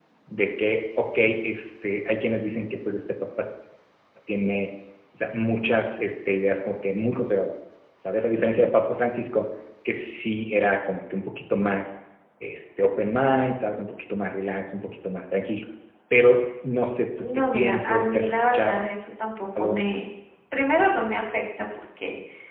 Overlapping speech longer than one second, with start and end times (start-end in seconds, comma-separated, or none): 17.4-18.8